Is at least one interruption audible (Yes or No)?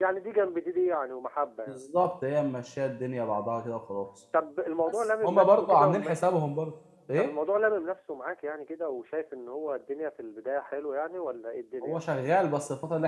Yes